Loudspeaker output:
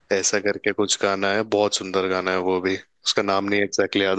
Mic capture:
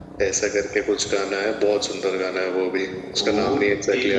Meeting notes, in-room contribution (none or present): present